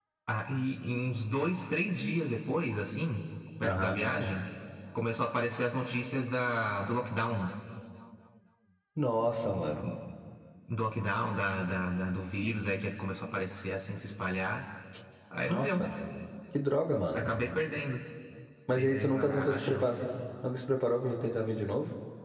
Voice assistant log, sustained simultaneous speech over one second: present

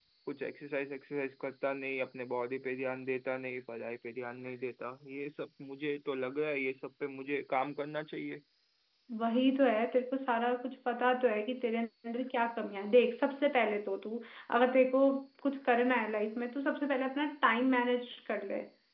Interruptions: none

